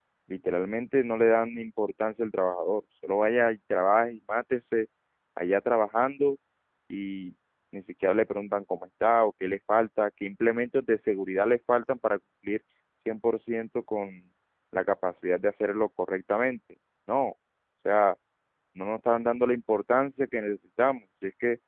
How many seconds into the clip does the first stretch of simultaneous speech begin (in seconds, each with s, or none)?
none